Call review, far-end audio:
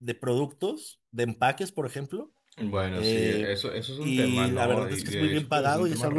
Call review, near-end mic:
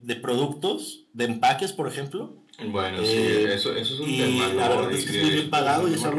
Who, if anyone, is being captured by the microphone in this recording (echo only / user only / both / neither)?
echo only